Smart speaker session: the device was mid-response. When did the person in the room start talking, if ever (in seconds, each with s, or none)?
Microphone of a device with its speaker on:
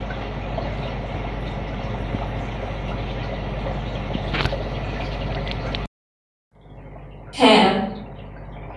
7.4 s